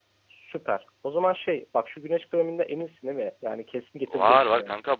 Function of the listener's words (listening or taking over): taking over